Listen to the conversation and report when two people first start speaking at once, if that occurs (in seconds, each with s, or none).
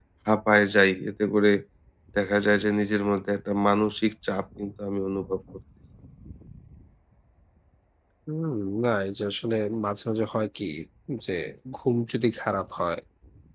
none